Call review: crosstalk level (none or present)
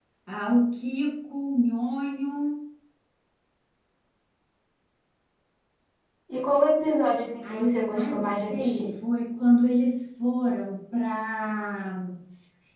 present